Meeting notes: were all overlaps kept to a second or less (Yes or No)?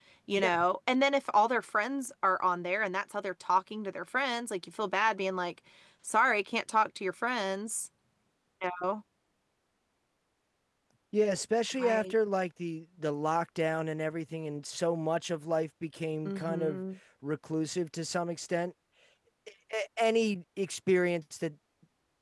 Yes